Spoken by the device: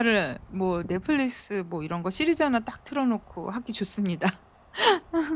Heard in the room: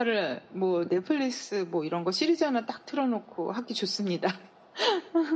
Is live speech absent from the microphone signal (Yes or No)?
Yes